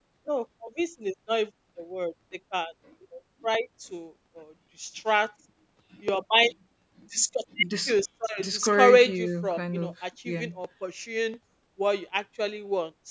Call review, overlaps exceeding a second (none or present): present